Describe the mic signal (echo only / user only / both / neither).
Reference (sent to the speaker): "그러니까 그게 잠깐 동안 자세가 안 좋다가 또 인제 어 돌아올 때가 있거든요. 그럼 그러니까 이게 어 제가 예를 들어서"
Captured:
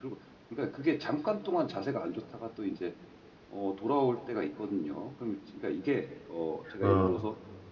both